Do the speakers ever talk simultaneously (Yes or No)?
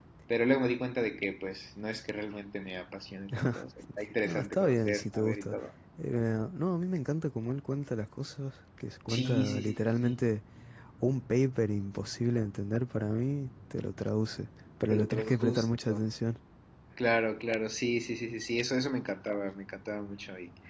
Yes